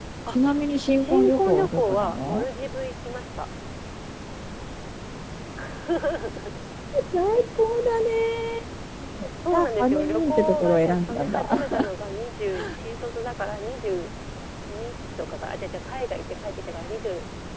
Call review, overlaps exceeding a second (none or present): present